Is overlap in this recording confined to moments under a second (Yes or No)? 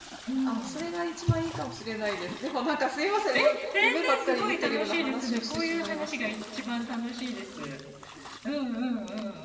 No